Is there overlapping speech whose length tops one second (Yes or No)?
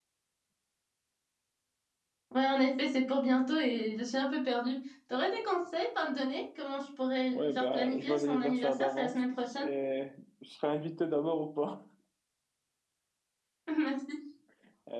Yes